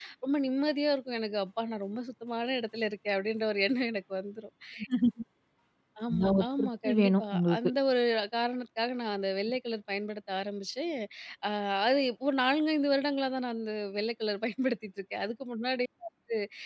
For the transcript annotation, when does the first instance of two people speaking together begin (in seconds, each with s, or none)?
6.1 s